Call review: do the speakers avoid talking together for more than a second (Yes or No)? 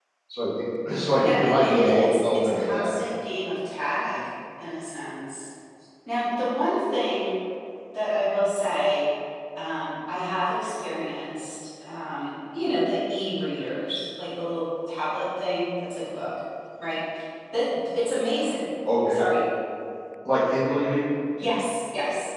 No